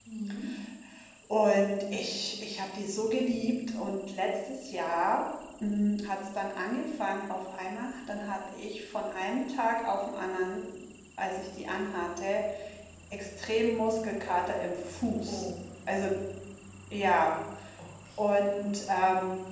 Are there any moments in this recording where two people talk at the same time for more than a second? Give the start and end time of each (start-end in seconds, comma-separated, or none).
none